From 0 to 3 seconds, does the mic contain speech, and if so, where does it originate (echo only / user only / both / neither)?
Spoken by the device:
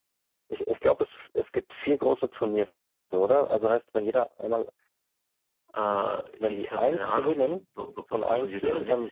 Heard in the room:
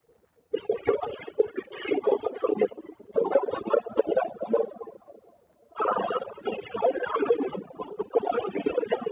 echo only